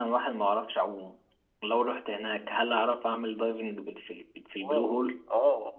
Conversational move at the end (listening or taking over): taking over